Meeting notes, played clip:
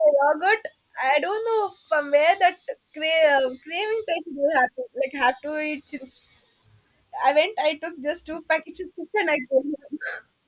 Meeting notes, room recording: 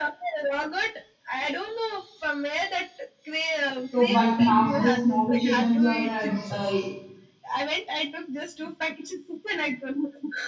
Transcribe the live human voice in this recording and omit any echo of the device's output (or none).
So, but now the small children are uh, uh,